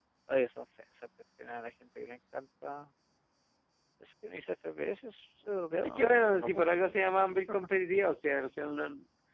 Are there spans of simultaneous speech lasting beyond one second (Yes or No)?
Yes